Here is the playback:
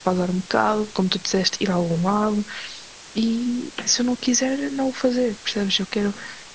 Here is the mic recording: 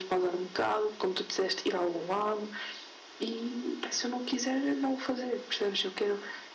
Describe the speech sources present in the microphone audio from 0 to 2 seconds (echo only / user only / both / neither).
echo only